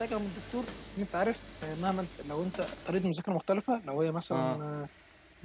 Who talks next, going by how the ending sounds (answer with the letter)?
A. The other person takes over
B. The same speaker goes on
B